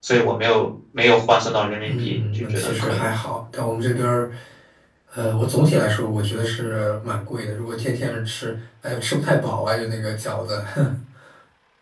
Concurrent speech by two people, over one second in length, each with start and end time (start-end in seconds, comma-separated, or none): 1.8-3.1